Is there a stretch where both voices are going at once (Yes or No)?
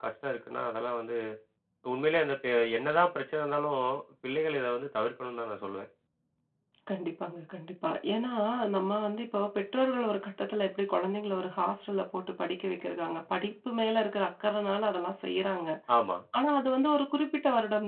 No